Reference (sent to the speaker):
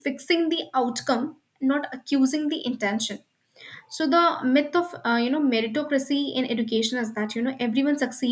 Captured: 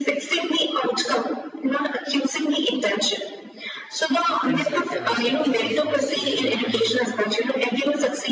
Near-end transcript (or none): it feels like an extension of a social hierarchy right